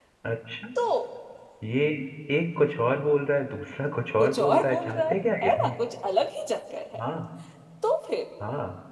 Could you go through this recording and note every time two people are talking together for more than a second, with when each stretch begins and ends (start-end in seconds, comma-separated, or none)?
4.2-5.5